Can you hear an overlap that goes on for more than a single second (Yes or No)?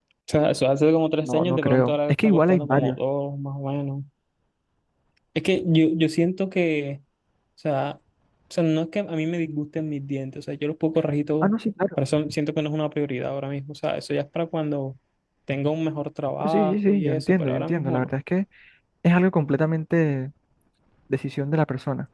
Yes